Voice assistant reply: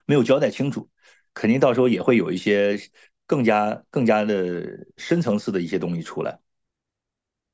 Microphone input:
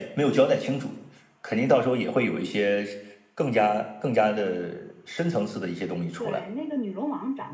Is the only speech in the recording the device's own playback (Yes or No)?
No